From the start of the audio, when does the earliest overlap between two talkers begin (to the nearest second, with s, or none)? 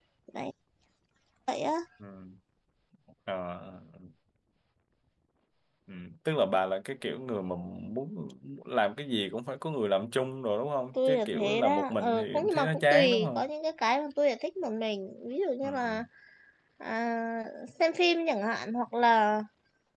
11 s